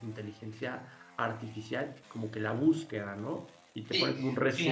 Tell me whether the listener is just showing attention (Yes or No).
No